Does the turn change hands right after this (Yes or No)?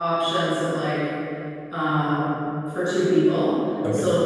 No